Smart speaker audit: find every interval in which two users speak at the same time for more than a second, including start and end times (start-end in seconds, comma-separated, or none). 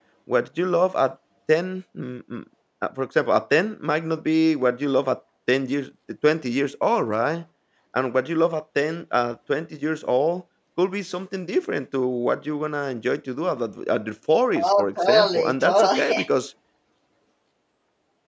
14.6-16.3